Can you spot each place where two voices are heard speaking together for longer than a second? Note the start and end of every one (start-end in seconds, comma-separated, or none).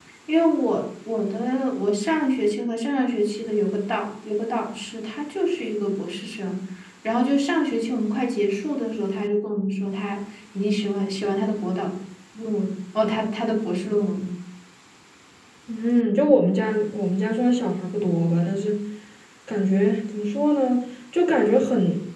none